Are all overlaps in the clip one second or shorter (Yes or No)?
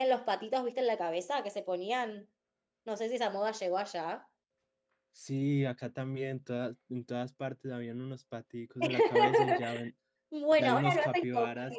No